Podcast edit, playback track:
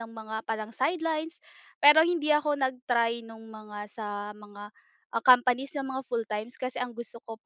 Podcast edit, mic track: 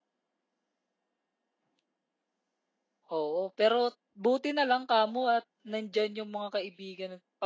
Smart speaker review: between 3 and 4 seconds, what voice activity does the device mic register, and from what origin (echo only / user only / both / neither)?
user only